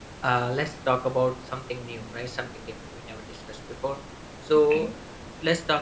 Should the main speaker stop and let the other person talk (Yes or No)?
No